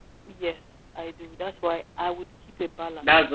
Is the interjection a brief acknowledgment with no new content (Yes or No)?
No